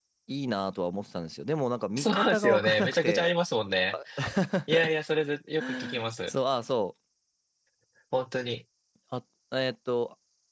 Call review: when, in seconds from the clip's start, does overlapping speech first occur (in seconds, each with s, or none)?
2.0 s